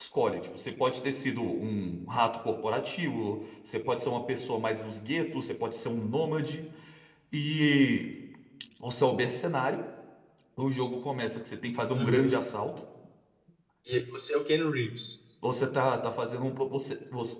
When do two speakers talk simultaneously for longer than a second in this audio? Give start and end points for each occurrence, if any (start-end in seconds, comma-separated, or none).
none